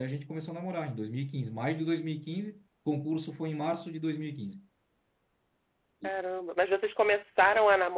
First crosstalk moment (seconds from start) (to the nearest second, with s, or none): none